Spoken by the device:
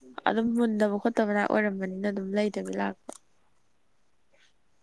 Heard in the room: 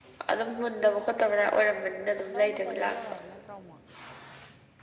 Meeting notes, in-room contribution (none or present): present